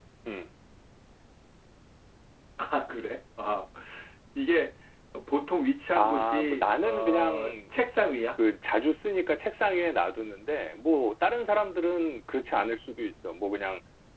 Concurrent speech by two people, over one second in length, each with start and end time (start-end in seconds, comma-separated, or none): 6.0-7.5